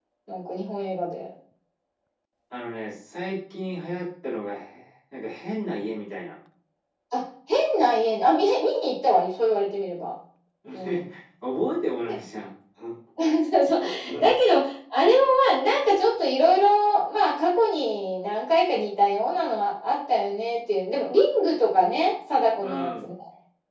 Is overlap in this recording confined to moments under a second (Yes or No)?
Yes